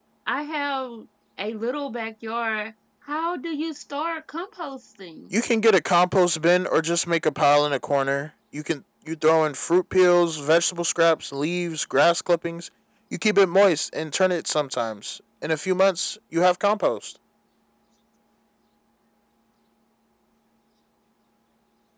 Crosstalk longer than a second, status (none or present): none